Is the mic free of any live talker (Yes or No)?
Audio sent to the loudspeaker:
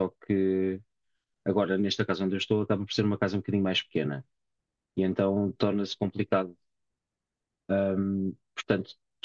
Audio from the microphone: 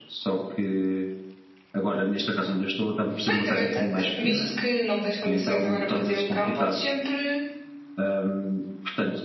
No